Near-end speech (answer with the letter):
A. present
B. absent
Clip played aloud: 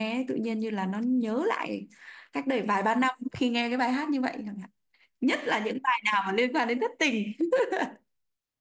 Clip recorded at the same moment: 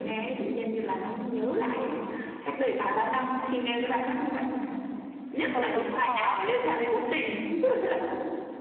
A